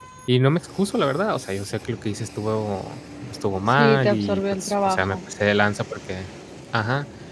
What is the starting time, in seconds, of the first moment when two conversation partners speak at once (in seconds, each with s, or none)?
3.7 s